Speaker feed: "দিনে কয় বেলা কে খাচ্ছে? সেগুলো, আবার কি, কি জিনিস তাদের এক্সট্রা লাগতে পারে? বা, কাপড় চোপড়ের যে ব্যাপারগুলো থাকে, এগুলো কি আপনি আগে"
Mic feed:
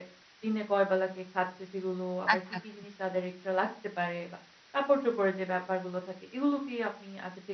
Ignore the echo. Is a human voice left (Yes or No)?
Yes